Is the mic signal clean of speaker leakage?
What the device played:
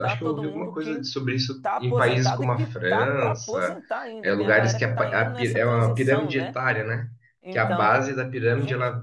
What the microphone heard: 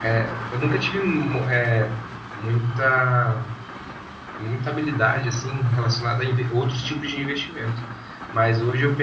Yes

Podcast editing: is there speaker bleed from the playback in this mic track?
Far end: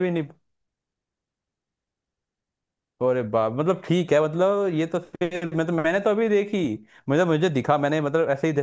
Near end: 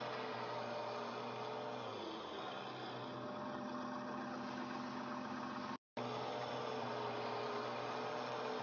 No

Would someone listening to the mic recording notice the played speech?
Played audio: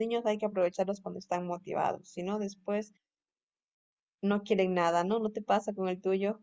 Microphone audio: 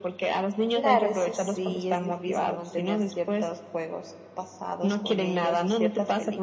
Yes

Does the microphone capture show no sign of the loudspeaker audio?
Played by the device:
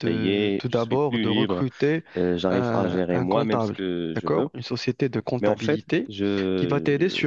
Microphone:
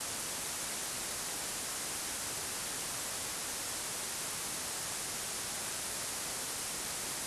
Yes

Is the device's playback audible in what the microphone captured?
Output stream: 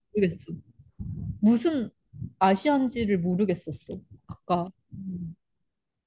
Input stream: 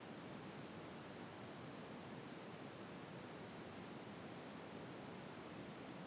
No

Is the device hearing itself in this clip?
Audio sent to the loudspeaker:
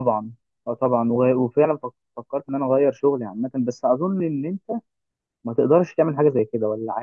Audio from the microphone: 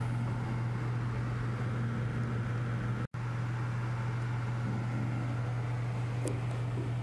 No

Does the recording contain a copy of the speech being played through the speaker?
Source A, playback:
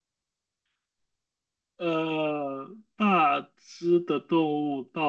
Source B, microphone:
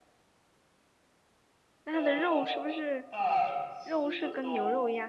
Yes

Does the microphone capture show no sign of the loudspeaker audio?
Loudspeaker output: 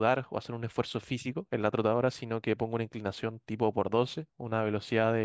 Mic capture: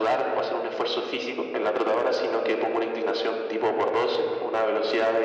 No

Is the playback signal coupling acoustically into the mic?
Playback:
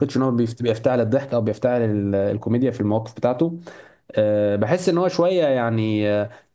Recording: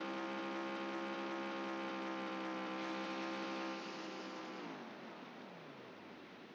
No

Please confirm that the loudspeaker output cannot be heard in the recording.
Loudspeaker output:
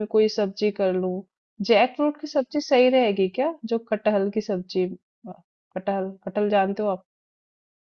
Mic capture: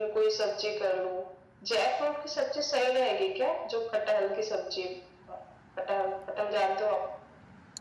No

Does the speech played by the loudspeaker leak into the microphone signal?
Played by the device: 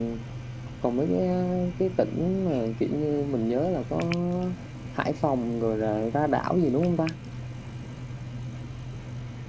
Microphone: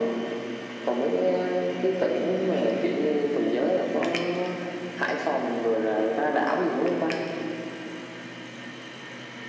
Yes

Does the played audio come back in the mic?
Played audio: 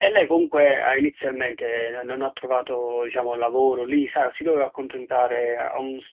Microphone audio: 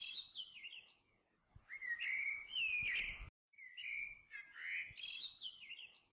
No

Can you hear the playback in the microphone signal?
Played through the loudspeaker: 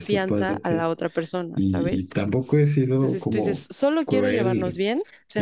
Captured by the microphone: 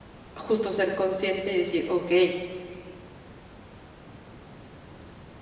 No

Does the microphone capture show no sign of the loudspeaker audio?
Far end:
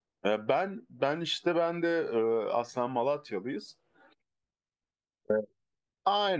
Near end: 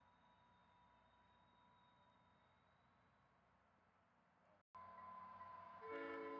Yes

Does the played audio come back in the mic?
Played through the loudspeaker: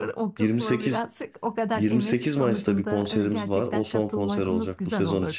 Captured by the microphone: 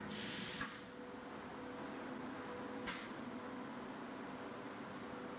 No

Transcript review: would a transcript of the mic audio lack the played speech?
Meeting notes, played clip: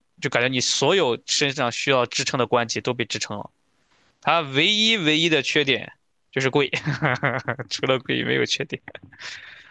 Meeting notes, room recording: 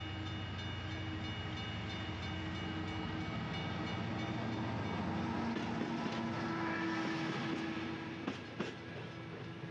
Yes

